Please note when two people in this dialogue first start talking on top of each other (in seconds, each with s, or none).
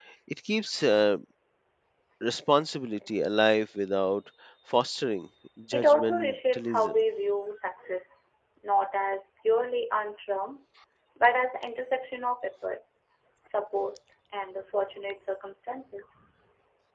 5.7 s